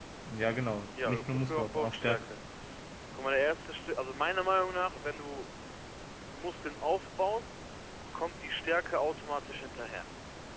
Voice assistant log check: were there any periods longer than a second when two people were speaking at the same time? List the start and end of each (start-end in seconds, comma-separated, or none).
1.0-2.3